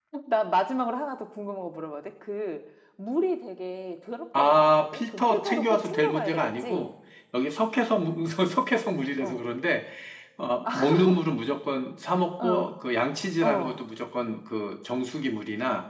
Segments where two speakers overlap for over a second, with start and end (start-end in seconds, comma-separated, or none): 4.4-6.9